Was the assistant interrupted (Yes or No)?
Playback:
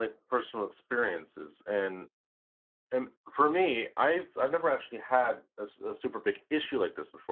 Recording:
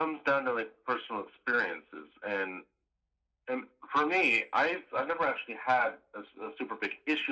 No